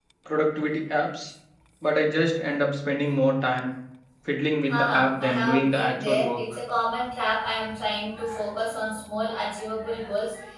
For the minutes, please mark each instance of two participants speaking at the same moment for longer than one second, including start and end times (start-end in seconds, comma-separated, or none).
4.7-6.4